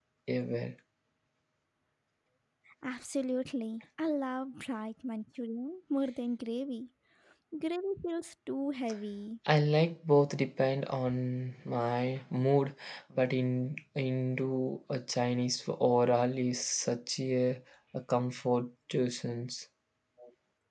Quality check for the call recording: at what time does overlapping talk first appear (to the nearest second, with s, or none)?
none